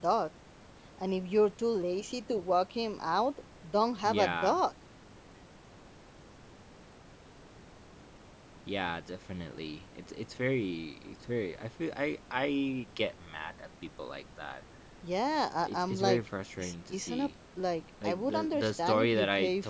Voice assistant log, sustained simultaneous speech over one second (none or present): present